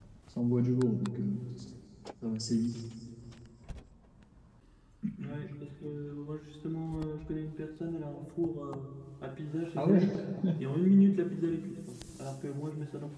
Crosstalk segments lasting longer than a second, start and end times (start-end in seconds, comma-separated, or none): none